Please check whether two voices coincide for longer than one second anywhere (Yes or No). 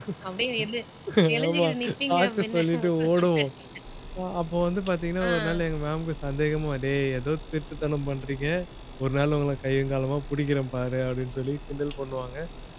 Yes